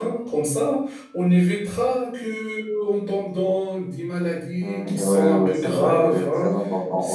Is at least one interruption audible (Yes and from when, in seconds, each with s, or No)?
Yes, from 4.6 s